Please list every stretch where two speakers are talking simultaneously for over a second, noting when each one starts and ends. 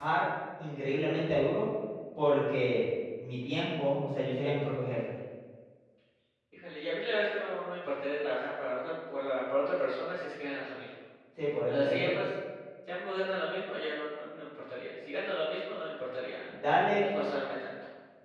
none

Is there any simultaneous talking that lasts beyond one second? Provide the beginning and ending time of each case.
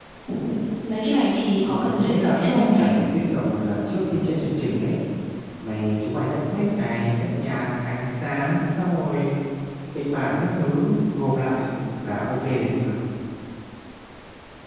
1.6-2.9

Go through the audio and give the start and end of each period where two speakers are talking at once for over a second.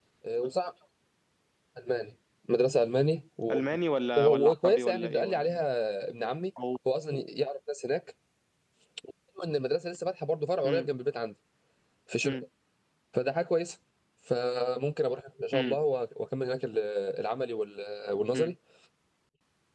4.2-5.6

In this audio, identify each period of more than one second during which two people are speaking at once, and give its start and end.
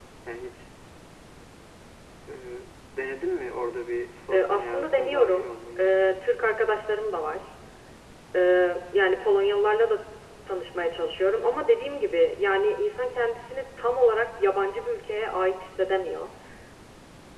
4.3-5.9

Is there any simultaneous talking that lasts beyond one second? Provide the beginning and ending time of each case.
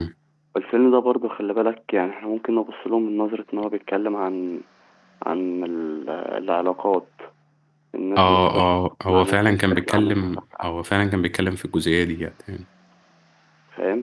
9.1-10.7

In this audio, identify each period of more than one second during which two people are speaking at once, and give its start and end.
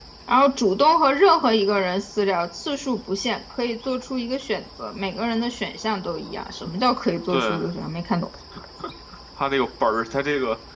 none

